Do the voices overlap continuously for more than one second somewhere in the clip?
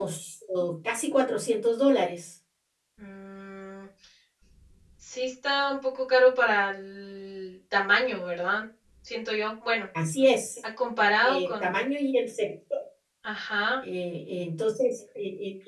No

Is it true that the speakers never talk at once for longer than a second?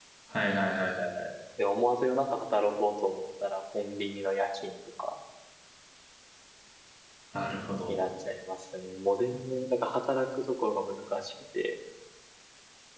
Yes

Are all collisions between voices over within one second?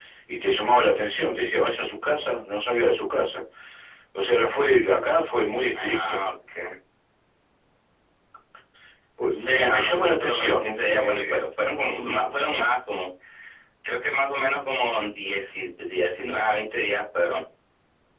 No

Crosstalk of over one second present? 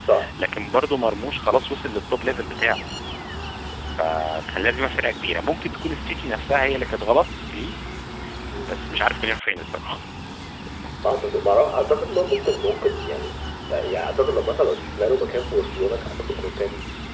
No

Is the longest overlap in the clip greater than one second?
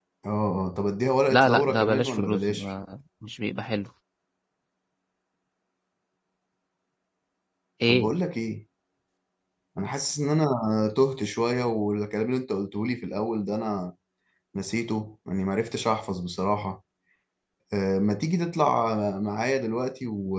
Yes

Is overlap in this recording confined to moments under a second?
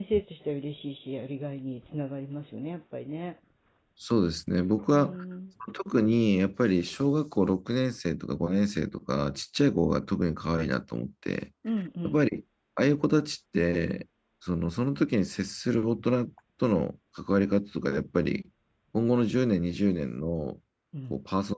Yes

